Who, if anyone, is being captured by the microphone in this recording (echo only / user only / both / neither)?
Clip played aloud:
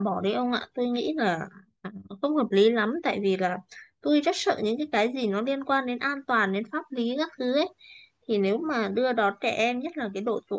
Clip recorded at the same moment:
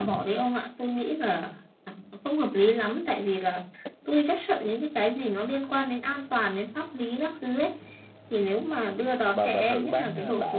both